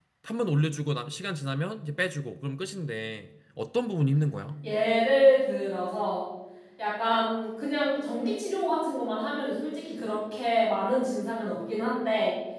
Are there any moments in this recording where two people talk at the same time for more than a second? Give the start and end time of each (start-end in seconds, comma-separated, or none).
none